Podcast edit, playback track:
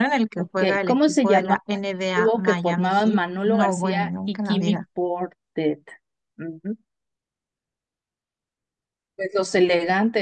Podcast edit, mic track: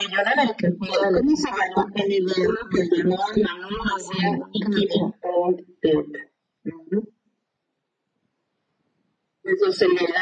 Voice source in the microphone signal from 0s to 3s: echo only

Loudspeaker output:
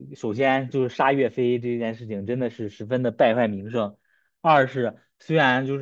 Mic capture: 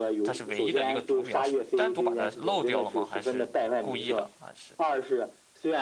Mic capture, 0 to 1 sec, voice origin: both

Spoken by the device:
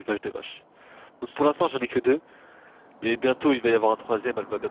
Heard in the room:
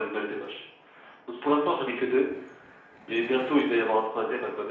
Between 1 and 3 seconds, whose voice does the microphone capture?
echo only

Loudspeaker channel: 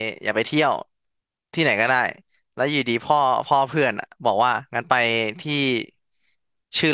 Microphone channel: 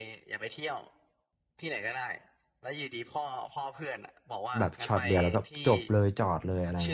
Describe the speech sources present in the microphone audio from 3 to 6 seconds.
both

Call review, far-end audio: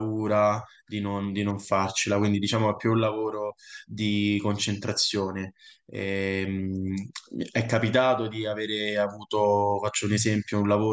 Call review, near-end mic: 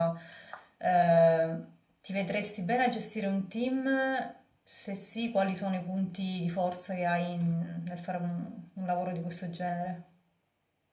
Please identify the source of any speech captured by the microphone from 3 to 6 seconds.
user only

